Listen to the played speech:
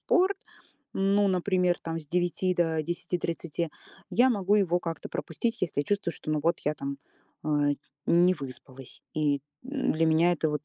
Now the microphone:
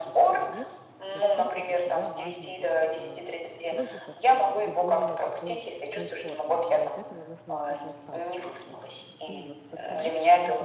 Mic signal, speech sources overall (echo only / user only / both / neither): both